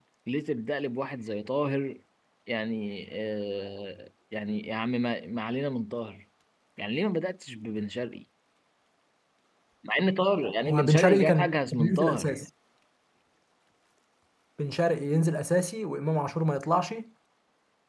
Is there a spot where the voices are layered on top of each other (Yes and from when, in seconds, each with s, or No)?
Yes, from 10.6 s